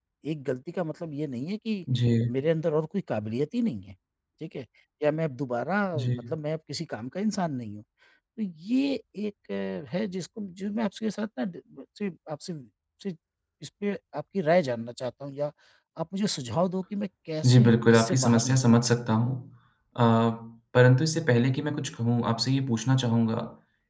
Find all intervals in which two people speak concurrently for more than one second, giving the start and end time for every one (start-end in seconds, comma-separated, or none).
17.4-18.8